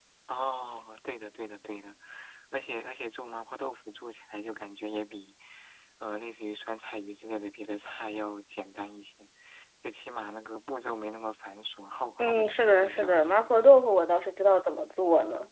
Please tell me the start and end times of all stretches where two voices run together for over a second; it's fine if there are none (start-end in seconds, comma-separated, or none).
12.2-13.4